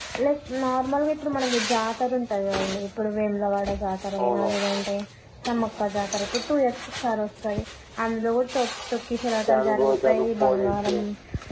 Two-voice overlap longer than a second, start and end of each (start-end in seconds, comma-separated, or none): 9.5-11.0